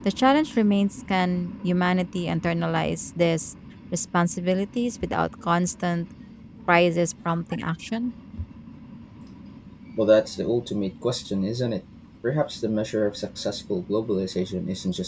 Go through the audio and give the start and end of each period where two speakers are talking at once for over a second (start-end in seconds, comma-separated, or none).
none